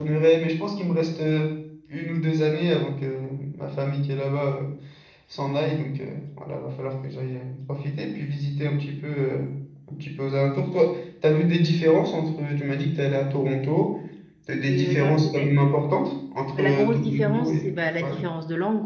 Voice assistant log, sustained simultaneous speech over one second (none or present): present